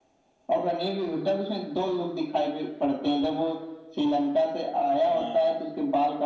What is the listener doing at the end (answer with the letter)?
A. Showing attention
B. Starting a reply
A